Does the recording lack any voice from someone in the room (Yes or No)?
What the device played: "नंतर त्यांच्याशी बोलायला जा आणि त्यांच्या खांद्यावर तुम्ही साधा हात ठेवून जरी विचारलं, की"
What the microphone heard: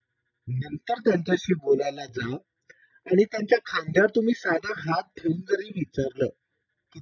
Yes